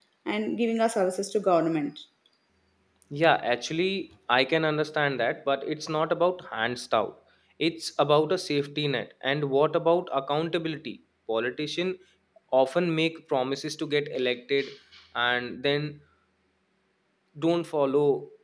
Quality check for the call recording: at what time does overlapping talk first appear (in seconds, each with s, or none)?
none